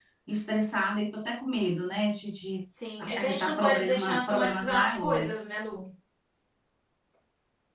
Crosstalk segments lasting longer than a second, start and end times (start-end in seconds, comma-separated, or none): 3.0-5.5